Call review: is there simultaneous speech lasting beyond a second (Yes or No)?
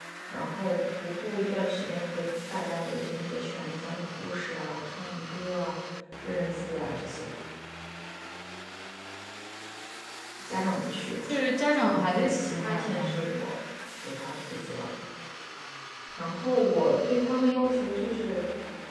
Yes